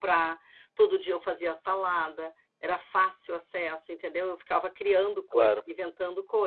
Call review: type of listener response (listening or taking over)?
listening